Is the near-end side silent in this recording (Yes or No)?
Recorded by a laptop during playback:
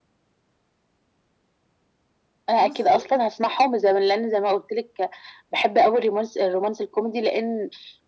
No